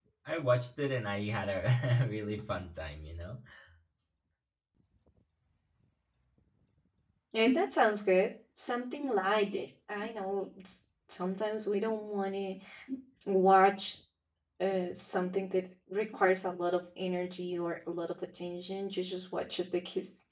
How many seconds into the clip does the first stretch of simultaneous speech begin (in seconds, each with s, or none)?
none